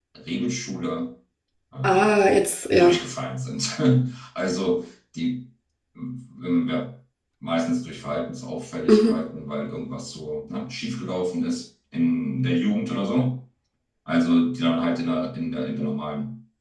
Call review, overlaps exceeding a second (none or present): none